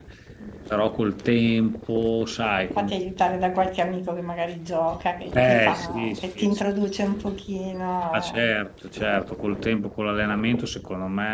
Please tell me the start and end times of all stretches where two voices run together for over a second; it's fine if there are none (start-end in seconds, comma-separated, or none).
5.4-6.6